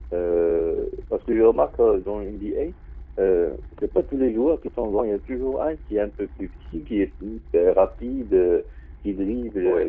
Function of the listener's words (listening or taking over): listening